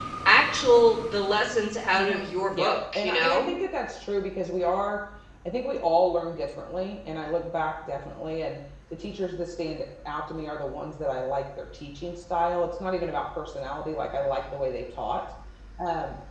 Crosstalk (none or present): present